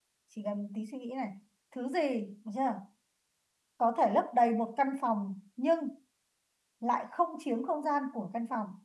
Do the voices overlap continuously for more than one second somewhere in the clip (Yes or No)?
No